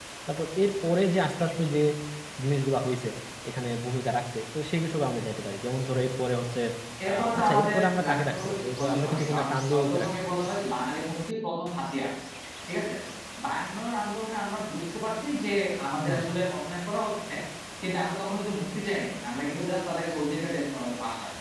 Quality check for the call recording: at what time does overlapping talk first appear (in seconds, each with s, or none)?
7.1 s